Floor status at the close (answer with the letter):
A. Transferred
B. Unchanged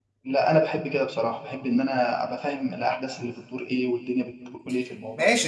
A